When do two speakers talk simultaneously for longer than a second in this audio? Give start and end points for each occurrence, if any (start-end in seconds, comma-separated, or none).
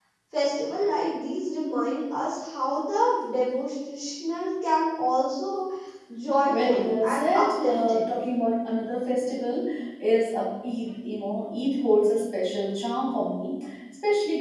6.5-8.0